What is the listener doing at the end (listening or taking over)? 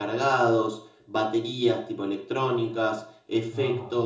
listening